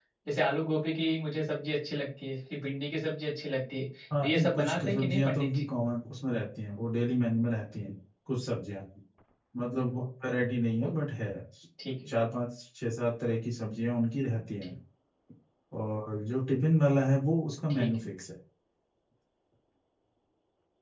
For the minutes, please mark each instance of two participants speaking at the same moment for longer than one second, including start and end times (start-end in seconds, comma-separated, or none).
4.2-5.6